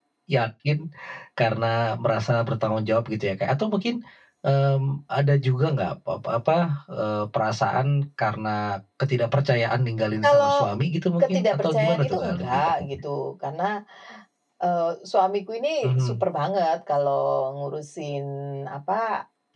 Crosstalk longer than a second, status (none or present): present